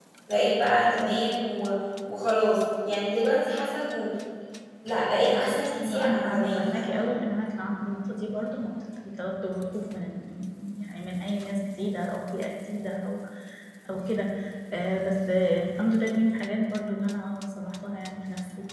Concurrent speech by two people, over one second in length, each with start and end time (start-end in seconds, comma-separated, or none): 5.2-7.1